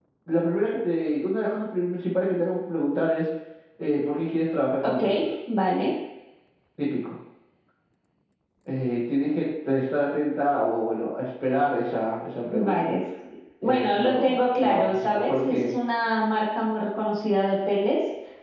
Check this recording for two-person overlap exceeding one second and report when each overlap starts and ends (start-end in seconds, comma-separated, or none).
13.6-15.7